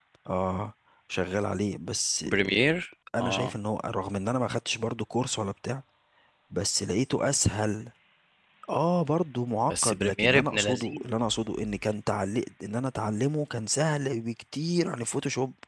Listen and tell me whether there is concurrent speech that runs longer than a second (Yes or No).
Yes